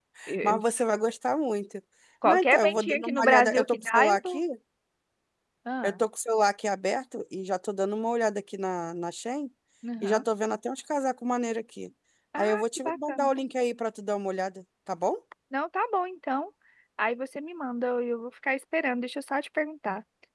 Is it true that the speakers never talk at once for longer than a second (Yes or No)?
No